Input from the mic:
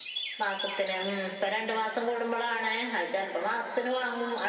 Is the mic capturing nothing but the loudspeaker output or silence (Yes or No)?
Yes